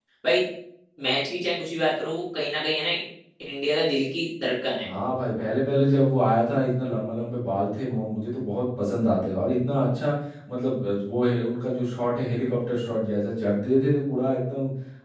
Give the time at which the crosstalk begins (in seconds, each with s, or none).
none